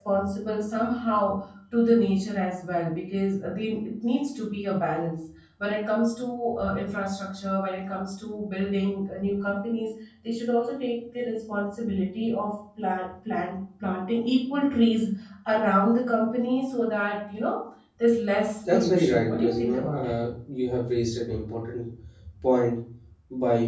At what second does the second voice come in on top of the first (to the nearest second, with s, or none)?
19 s